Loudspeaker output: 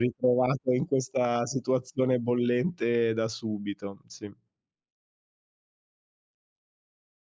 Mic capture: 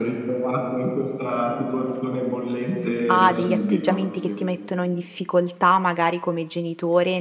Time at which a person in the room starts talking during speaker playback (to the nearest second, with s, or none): 3 s